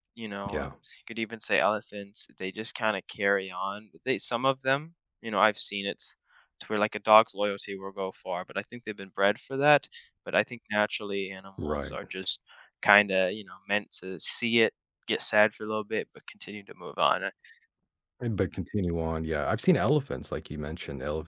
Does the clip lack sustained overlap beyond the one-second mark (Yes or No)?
Yes